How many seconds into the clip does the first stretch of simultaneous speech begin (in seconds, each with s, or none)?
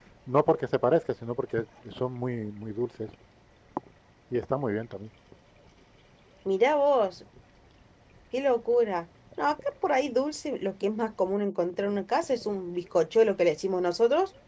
none